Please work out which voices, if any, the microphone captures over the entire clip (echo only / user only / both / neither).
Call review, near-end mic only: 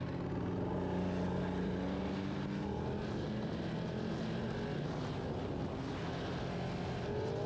neither